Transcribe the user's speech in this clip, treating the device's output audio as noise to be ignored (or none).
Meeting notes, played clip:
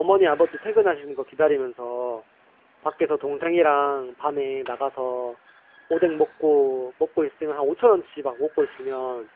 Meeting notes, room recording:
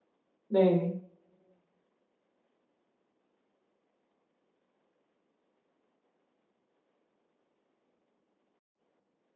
네.